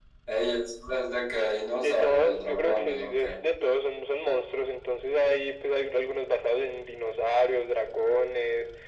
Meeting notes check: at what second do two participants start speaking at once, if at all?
1.7 s

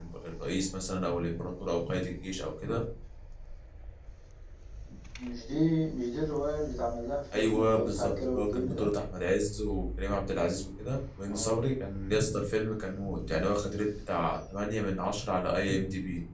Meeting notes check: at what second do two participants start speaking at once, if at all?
7.3 s

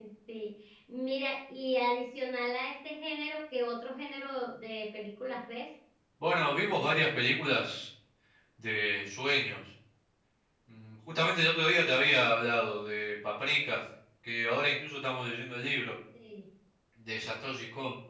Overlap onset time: none

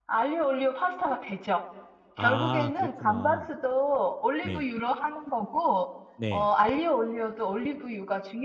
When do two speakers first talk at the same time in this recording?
2.2 s

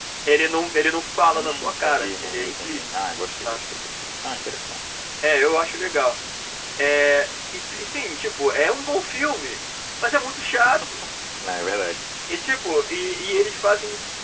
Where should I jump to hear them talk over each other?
1.3 s

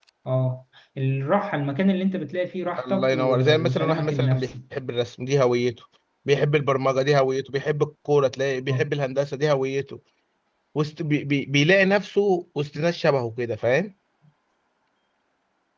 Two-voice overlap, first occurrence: 2.8 s

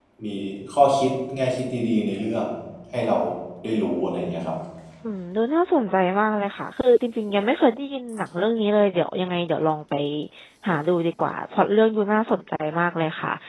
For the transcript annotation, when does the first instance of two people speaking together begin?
none

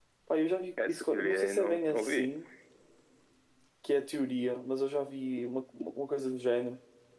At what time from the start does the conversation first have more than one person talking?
0.8 s

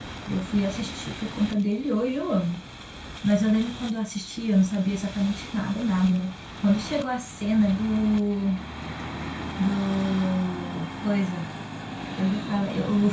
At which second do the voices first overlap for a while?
none

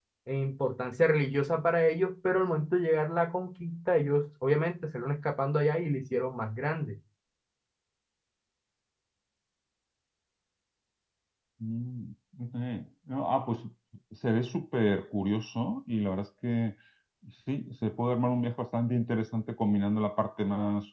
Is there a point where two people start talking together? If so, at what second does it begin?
none

